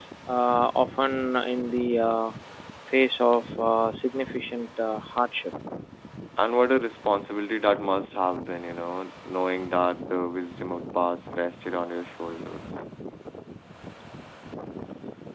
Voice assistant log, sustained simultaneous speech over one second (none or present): none